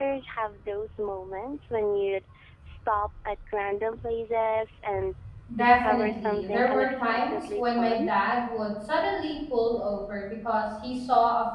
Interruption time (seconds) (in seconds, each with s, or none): 5.6 s